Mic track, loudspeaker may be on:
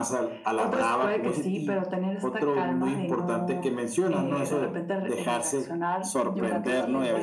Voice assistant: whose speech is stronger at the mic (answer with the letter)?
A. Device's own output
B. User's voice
A